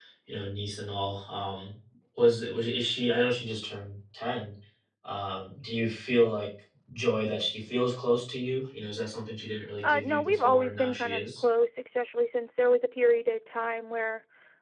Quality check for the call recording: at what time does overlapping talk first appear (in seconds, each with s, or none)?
9.8 s